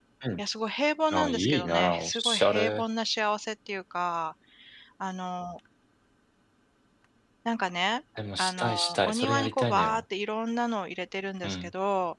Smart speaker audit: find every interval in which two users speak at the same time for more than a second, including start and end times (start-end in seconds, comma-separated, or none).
1.1-2.8, 8.4-10.0